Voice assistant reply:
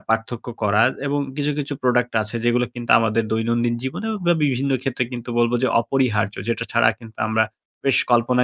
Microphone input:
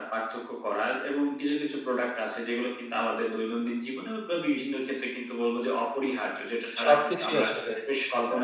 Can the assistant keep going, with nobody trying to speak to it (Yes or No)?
No